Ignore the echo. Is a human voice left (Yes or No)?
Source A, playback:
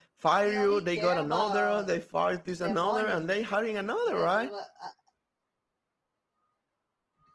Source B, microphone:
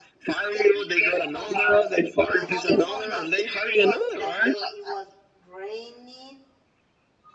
Yes